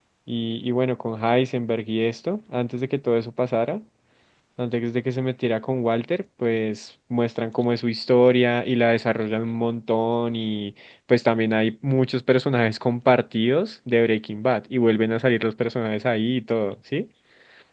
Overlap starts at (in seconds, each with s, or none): none